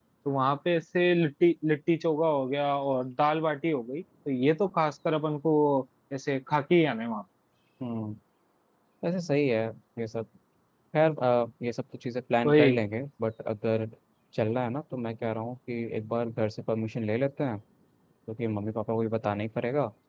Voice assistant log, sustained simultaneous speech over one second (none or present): none